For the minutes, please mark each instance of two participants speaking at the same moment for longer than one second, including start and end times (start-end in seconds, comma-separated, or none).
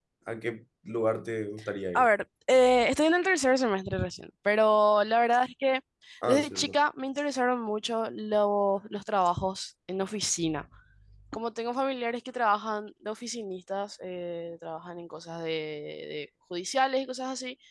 none